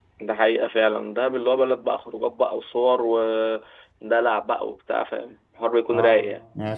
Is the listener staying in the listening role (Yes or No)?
No